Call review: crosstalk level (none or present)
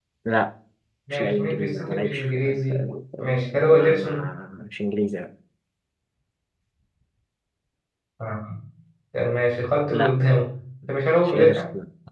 present